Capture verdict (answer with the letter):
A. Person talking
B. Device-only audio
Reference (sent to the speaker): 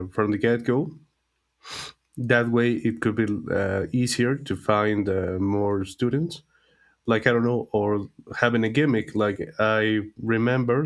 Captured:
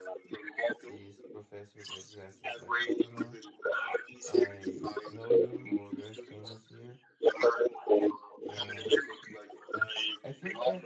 A